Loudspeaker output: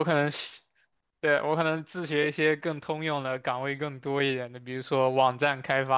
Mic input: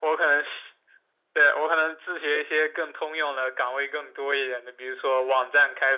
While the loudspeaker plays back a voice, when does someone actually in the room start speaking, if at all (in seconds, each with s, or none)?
none